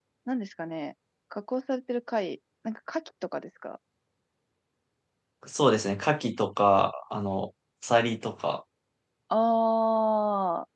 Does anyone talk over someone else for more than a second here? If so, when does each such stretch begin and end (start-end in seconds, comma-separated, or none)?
none